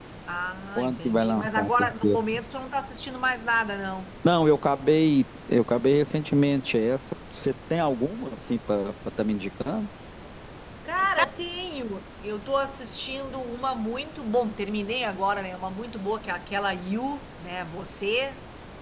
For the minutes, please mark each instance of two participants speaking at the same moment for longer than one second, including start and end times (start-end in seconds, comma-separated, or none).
0.8-2.2